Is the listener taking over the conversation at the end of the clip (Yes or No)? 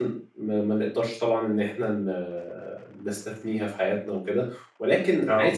No